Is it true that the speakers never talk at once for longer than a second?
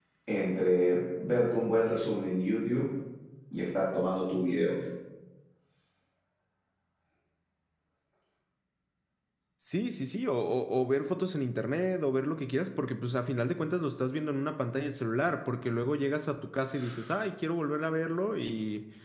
Yes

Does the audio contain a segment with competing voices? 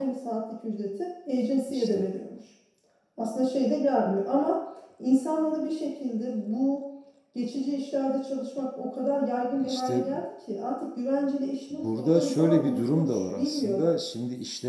Yes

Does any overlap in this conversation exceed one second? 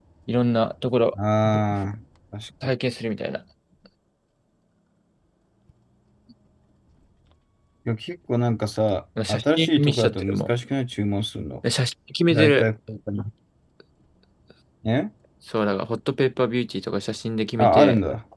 Yes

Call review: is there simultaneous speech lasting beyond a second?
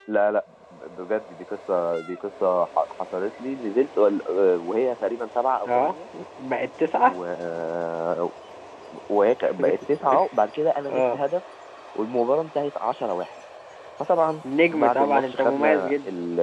Yes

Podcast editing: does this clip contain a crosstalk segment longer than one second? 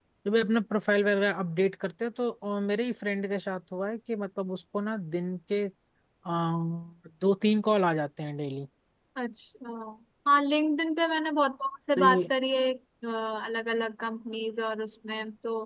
No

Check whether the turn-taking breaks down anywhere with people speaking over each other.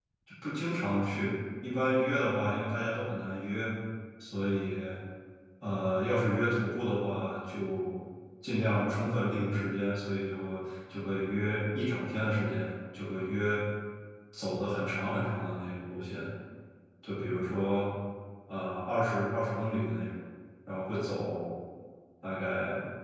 No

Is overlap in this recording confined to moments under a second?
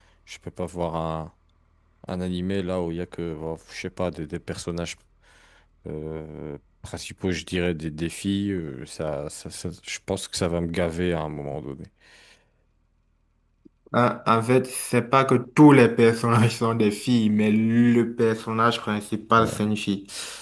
Yes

